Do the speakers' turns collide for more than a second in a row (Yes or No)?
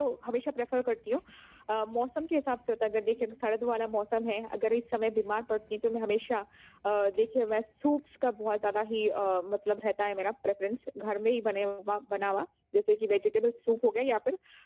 No